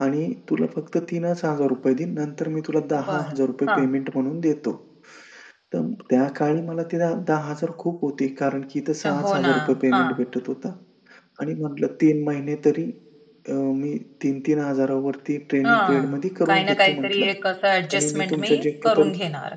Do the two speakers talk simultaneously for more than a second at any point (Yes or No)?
Yes